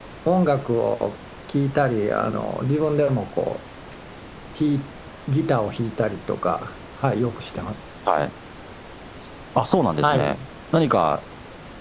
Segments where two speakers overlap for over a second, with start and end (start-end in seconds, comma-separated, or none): none